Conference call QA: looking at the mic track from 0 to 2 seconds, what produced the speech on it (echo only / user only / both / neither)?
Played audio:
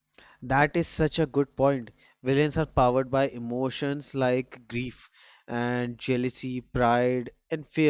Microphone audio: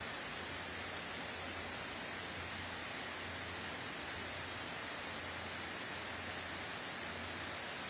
neither